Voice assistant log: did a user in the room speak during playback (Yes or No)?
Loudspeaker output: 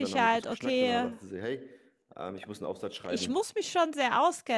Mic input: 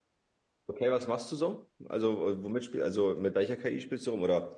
Yes